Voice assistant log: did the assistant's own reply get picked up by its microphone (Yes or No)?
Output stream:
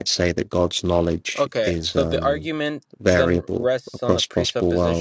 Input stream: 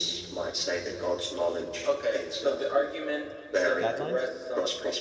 Yes